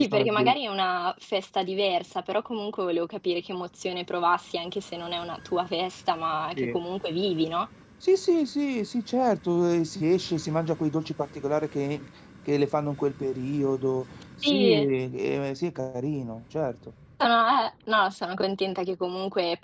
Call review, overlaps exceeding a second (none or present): none